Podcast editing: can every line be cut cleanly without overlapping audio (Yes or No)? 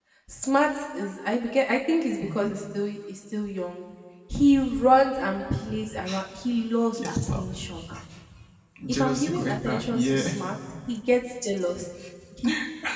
No